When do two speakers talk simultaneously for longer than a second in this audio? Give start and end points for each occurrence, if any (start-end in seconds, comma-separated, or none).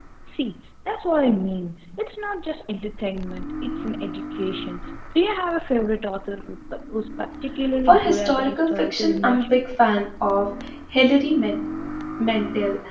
7.9-9.6